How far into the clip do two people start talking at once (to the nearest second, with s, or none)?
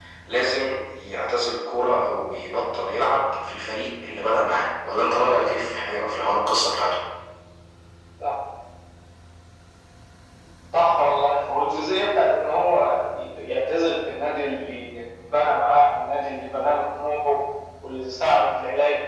none